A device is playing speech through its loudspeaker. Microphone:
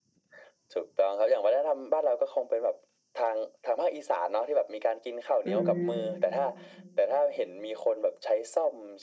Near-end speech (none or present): present